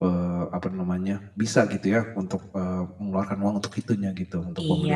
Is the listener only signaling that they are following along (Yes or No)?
No